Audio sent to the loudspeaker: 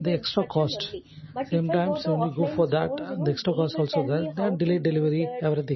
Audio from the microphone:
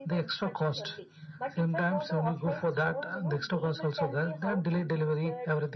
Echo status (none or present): present